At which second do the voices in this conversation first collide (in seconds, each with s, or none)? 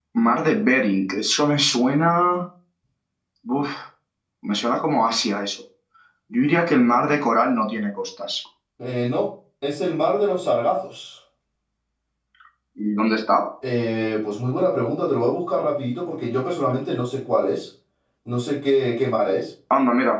none